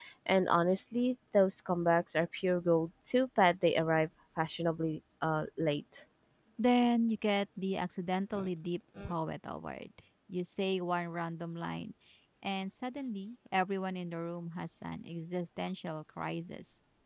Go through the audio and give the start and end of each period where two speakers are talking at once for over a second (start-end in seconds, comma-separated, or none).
none